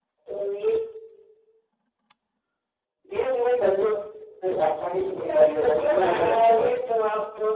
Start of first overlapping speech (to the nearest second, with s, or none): 5 s